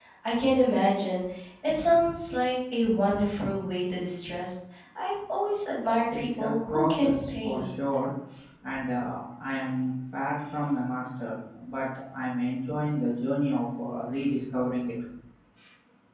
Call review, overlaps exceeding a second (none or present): present